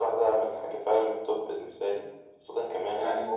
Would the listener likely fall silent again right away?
Yes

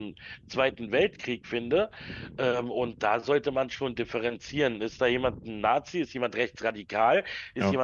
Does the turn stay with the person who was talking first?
Yes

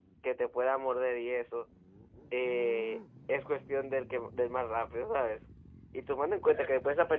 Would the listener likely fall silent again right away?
Yes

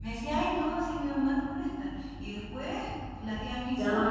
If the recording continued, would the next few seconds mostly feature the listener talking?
Yes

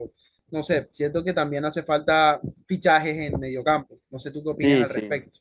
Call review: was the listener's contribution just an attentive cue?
No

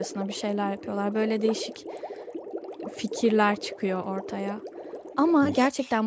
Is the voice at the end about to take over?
No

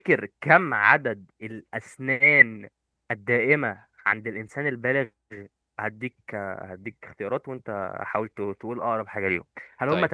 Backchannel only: Yes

